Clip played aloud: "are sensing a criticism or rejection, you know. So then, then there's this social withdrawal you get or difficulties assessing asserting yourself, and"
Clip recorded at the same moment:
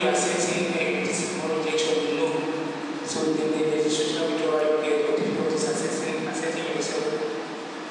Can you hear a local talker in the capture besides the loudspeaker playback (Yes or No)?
No